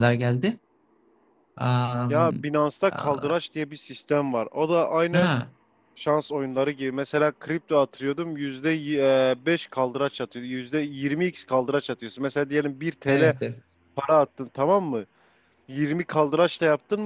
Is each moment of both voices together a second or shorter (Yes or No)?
Yes